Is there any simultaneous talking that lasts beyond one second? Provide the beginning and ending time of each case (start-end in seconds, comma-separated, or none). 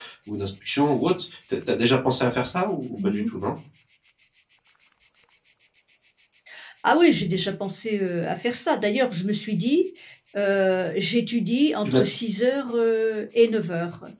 none